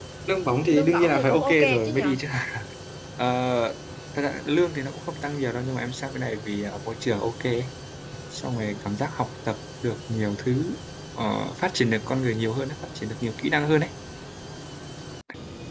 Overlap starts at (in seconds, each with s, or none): 0.6 s